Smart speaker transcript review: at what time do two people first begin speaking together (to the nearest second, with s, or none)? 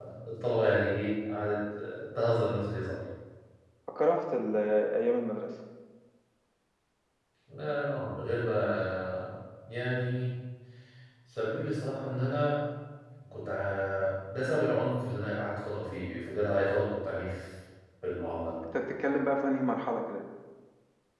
none